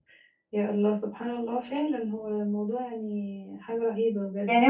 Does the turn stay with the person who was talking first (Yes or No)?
No